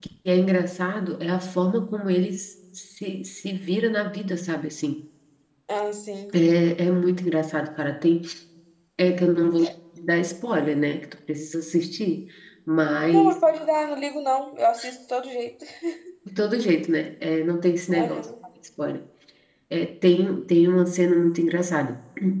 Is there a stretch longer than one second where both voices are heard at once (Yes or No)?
No